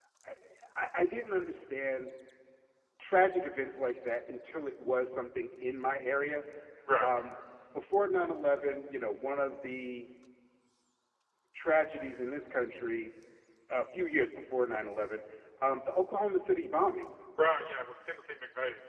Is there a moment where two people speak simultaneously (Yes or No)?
No